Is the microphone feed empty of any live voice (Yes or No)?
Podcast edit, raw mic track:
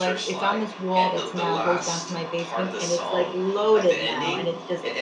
No